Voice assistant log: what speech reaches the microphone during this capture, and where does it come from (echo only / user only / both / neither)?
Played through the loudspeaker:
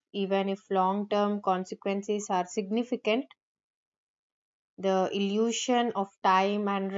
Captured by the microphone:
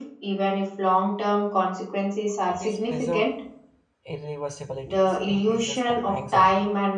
both